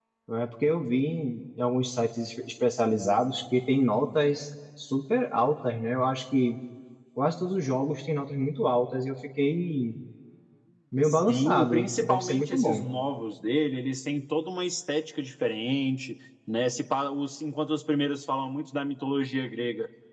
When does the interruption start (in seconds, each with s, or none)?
11.0 s